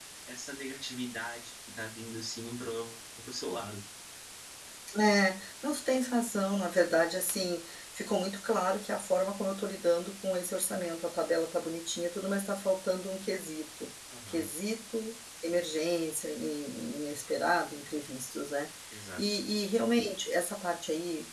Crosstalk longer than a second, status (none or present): none